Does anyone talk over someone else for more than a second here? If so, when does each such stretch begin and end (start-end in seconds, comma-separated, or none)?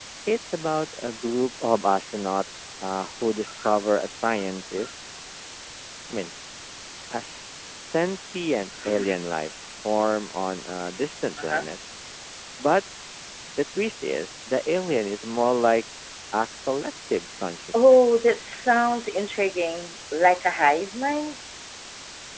none